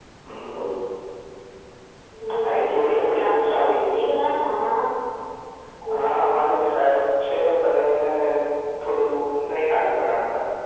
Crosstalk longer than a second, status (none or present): present